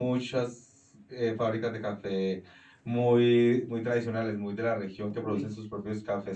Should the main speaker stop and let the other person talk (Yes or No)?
No